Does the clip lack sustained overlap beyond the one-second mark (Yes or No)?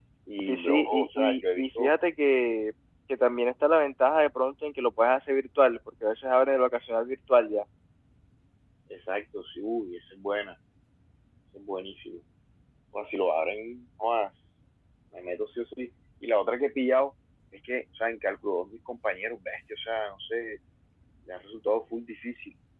No